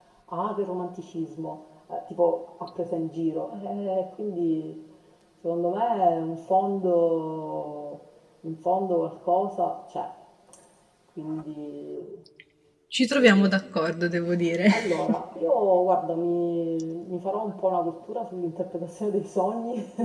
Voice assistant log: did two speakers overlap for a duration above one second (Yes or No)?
No